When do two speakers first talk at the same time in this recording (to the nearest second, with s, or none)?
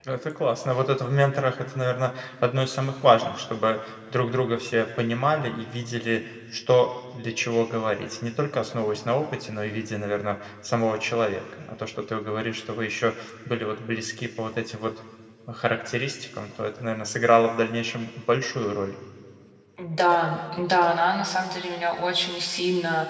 none